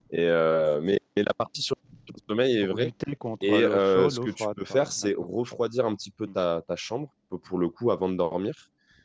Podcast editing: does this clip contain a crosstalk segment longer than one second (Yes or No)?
Yes